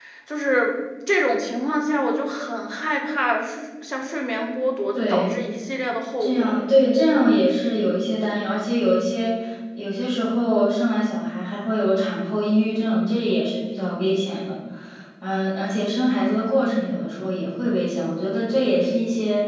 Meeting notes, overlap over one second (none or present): none